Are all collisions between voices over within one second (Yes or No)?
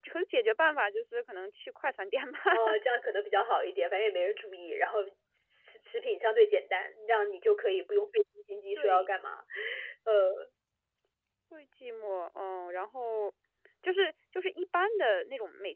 Yes